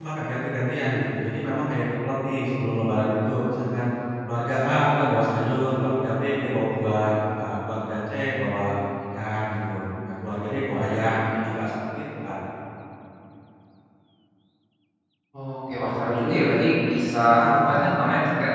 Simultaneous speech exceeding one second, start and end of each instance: none

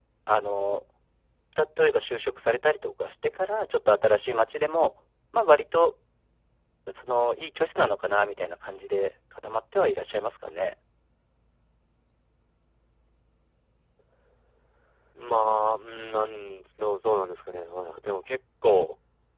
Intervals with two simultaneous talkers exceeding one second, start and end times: none

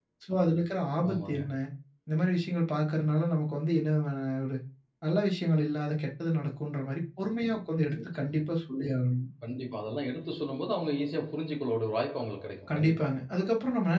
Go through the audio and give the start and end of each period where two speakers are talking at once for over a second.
none

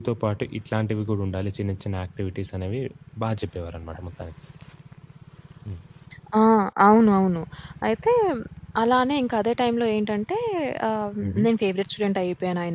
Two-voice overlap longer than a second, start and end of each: none

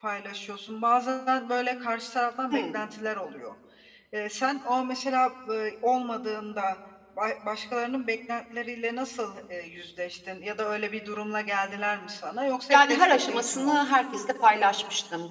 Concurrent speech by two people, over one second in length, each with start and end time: 12.7-14.0

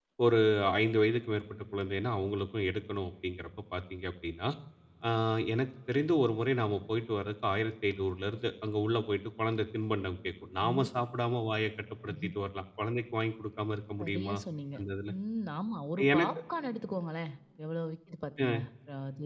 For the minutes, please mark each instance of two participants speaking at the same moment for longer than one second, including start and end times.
none

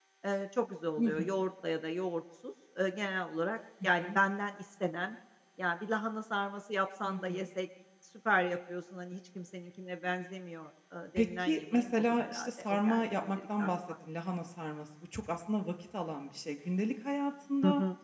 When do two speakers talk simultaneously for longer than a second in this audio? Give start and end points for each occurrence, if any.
11.2-13.7

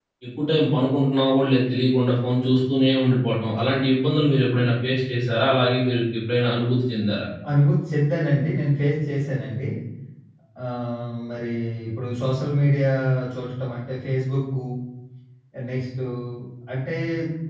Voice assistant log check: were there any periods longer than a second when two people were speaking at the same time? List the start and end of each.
none

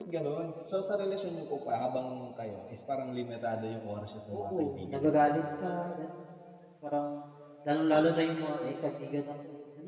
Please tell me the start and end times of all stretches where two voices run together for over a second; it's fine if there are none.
4.3-5.6

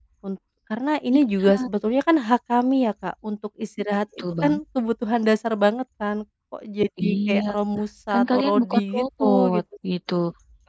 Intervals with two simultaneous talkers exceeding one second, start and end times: 8.1-9.6

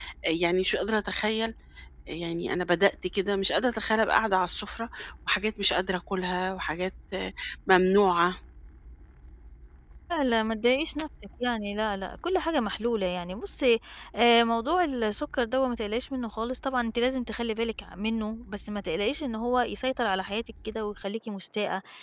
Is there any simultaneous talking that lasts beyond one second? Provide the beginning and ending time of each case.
none

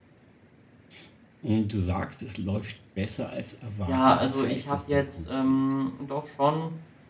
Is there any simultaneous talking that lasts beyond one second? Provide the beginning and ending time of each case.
3.9-5.6

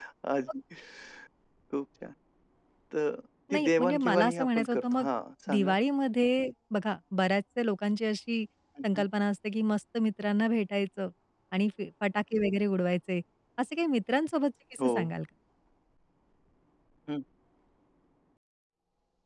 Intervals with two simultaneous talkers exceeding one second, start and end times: 3.5-5.0

